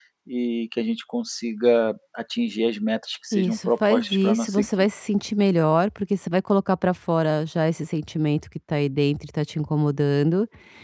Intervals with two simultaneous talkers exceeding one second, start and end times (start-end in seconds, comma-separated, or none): 3.3-4.7